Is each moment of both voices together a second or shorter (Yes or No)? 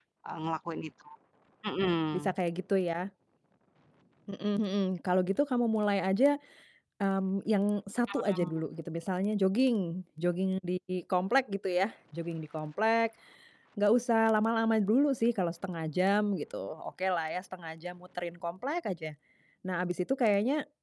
Yes